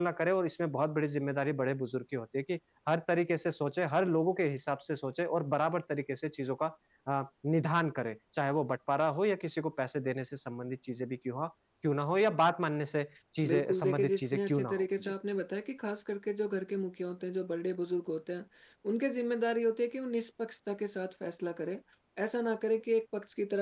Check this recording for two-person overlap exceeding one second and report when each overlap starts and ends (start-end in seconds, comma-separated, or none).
13.5-15.1